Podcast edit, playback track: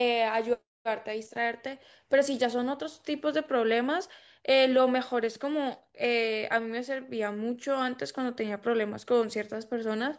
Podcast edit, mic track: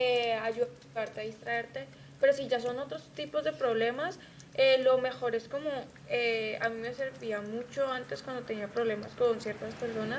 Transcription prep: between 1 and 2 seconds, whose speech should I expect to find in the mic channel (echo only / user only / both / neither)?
echo only